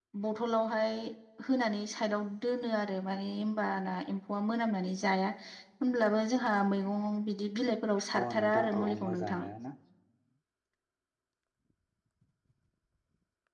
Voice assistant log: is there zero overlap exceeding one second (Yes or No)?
No